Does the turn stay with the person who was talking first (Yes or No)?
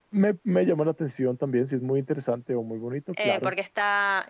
No